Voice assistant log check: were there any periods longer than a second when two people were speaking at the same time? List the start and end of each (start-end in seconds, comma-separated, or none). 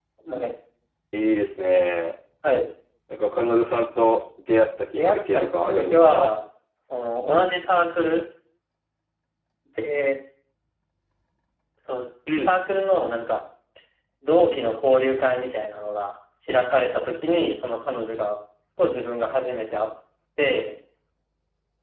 5.0-6.3